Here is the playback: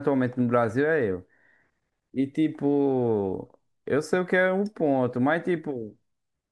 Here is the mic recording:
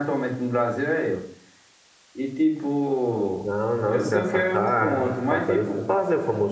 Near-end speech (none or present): present